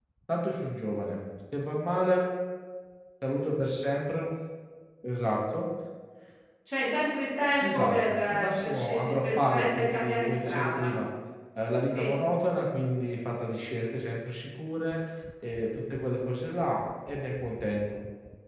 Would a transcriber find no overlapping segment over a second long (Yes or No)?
No